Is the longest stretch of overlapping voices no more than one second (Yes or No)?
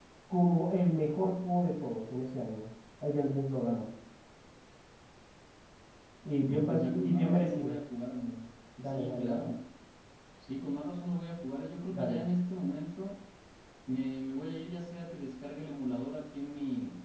No